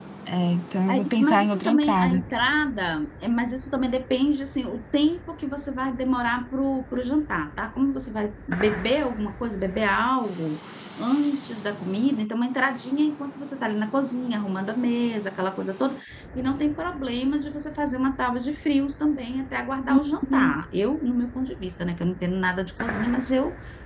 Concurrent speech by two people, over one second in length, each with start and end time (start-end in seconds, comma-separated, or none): 0.9-2.2